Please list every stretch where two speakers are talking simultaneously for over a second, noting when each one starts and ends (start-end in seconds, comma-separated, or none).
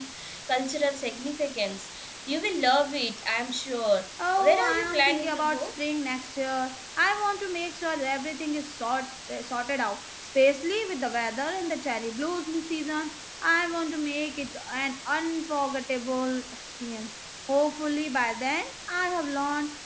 4.4-5.7